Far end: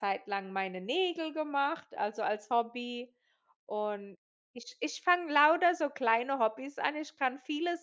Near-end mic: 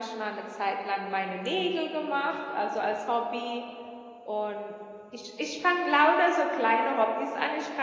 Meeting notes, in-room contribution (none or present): none